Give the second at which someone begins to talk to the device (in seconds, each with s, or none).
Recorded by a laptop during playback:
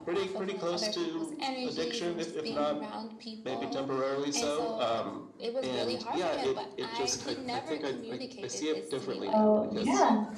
9.3 s